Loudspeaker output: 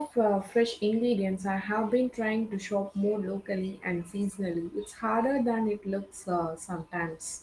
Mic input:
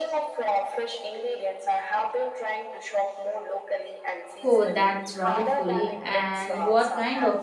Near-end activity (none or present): present